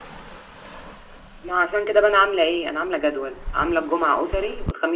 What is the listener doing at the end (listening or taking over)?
listening